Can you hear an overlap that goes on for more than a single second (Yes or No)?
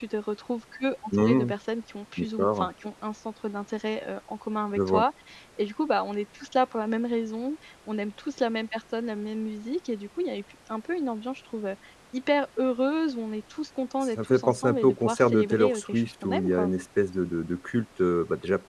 Yes